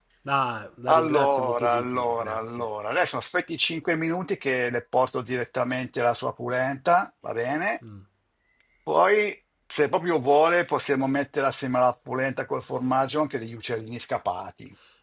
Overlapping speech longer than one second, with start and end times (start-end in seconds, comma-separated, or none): 0.9-2.7